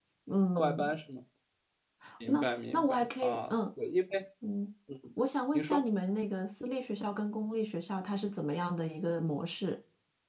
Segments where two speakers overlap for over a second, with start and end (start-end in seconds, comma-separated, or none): 2.3-3.5